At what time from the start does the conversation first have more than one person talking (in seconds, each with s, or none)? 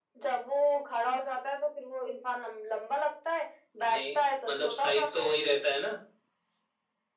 3.8 s